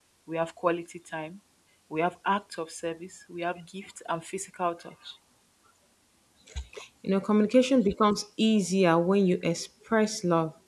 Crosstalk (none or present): none